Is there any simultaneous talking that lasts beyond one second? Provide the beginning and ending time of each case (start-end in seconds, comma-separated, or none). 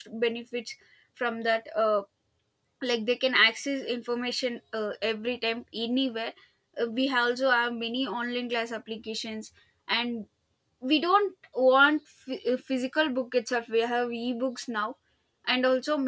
none